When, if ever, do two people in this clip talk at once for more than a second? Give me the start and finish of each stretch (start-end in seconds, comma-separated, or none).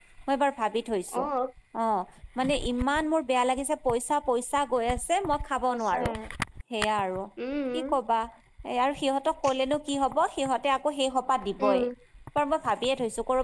none